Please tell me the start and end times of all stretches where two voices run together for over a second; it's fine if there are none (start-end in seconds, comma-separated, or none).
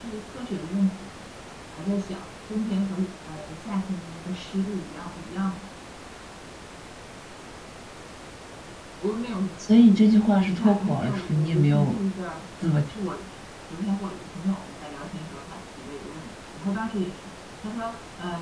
10.4-12.0